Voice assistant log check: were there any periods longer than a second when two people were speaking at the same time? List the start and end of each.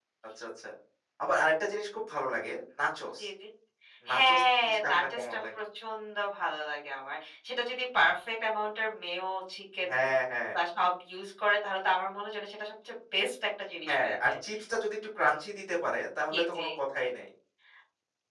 4.1-5.6

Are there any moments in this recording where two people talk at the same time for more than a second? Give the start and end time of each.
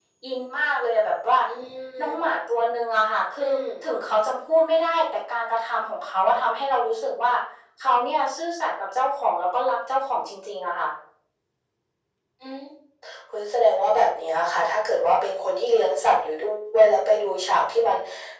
none

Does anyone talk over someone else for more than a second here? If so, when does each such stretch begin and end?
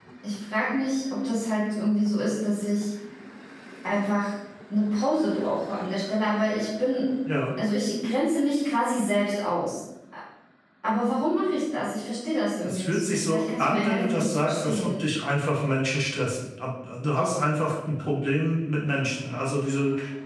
12.7-14.9

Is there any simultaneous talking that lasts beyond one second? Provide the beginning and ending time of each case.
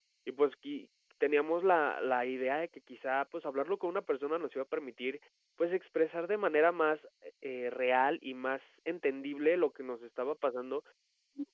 none

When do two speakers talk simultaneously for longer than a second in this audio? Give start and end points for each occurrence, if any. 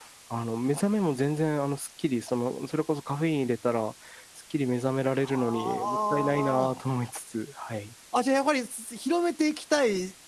5.5-6.7

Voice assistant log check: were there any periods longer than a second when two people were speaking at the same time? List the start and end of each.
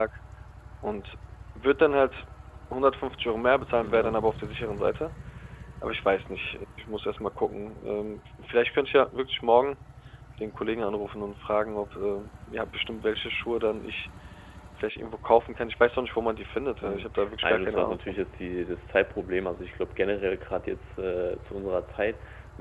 16.8-18.2

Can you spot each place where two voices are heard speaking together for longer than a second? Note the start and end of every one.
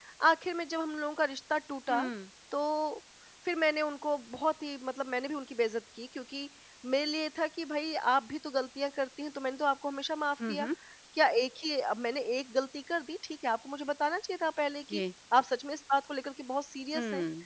none

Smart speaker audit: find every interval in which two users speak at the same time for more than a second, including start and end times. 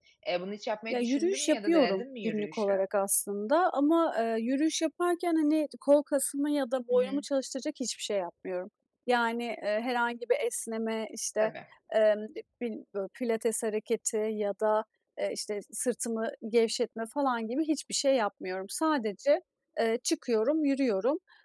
0.9-2.7

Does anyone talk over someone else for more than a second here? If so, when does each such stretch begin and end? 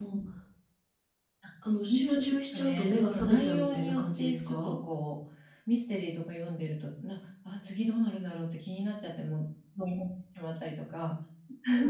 1.8-4.8

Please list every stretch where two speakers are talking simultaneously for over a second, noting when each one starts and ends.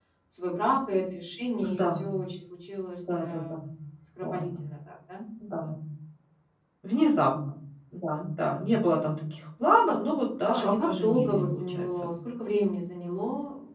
10.5-11.9

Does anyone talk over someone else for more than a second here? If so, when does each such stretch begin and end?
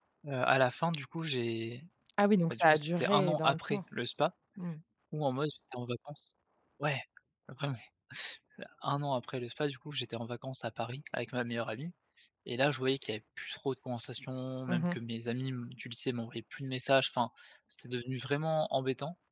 2.5-3.8

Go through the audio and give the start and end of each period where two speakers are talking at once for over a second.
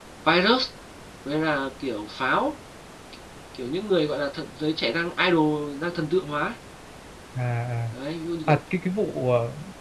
none

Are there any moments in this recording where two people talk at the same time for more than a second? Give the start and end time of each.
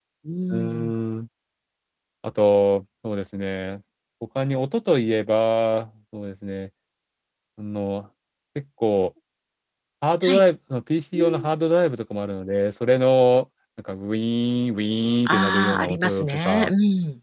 15.2-16.7

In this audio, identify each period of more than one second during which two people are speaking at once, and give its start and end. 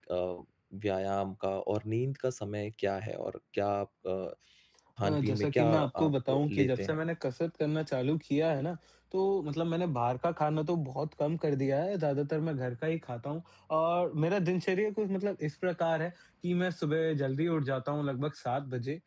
5.0-7.0

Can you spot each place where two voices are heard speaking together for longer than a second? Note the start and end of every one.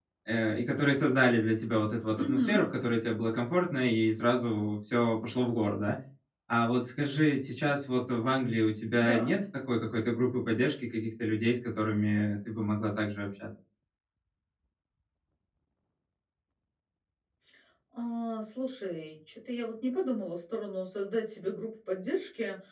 none

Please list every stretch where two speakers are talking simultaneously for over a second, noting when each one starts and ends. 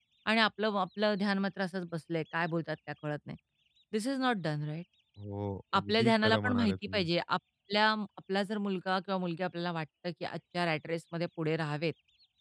5.8-7.1

